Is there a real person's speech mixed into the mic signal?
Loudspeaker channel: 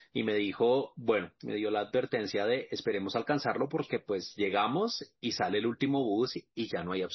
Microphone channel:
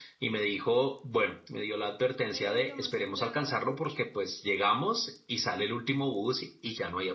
Yes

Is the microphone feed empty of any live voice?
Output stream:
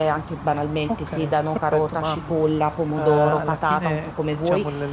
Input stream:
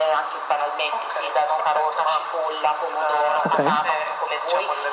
No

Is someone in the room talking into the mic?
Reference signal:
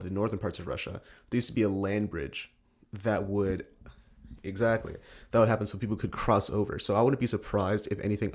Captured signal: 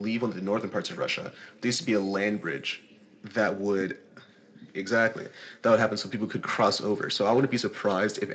No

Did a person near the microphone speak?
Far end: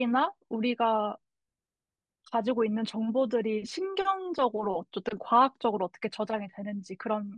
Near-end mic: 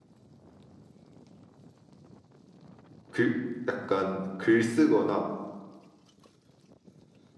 Yes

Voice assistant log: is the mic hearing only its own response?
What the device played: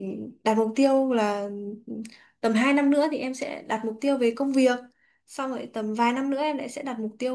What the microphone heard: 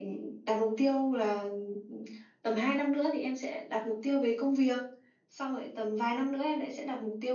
Yes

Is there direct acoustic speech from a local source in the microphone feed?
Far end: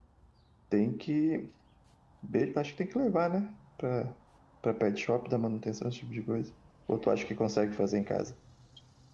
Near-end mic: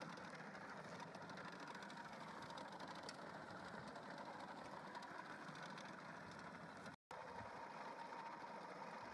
No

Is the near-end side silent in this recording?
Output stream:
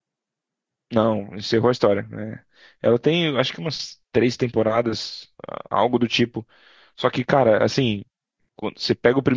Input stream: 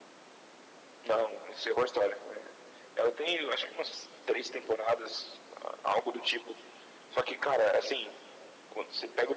Yes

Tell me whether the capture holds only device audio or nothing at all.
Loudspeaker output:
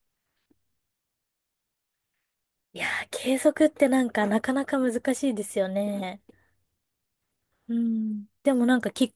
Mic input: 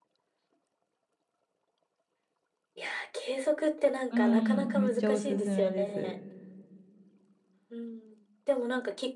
No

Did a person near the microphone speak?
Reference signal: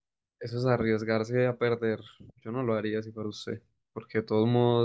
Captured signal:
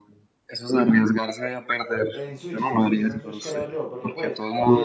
Yes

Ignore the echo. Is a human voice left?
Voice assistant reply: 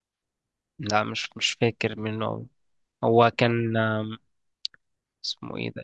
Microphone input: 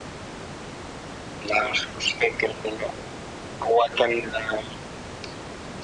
No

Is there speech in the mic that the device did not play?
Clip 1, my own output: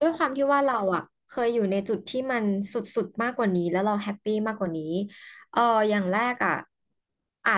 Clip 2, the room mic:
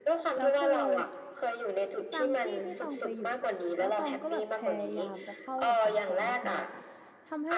Yes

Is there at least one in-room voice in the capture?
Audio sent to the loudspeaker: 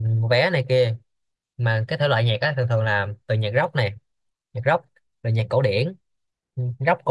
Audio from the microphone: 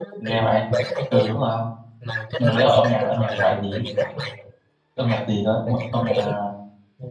Yes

